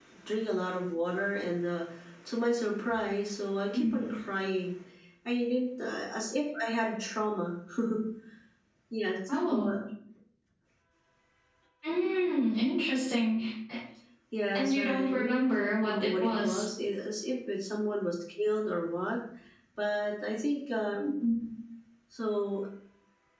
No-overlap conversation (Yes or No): No